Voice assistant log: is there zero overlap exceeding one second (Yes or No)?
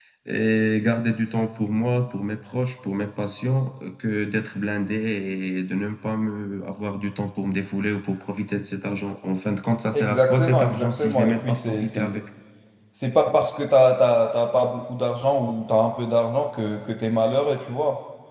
No